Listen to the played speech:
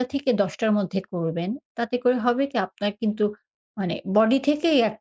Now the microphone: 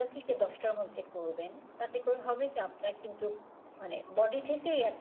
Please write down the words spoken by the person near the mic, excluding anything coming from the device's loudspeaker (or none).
none